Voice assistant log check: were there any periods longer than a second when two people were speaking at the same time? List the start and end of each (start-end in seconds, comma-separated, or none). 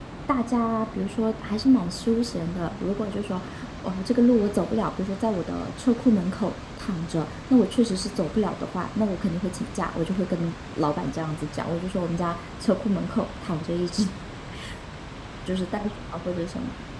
none